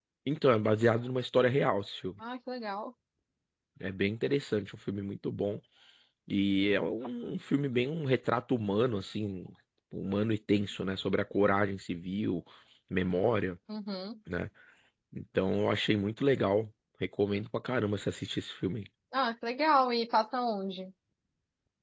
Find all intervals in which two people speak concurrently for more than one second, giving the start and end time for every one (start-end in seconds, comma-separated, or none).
none